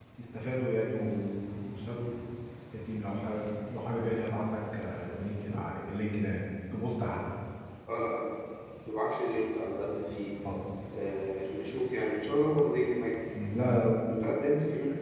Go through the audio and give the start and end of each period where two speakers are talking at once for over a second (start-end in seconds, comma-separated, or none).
none